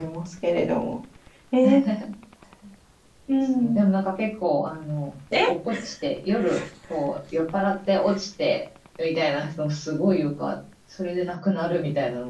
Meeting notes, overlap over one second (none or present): none